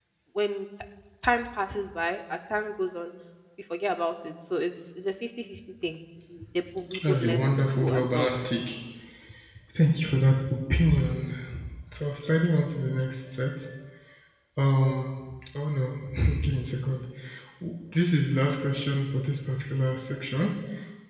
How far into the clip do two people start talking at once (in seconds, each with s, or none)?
7.1 s